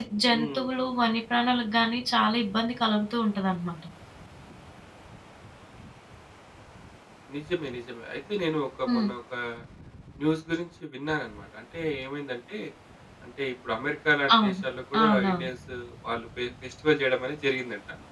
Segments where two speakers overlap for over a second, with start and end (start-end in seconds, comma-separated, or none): none